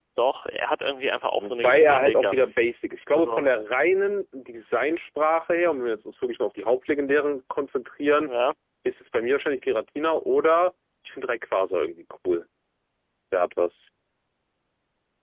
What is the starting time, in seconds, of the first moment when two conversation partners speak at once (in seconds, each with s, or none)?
1.4 s